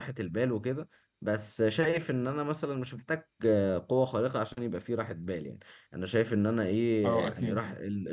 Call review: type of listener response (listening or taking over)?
listening